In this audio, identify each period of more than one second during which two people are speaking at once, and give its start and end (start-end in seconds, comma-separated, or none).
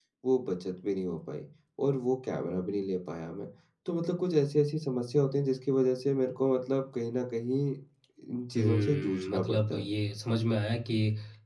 8.6-9.8